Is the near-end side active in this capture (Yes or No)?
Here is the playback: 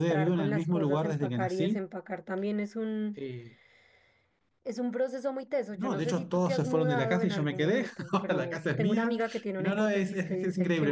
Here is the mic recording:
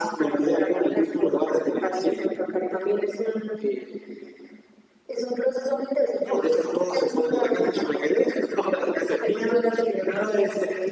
No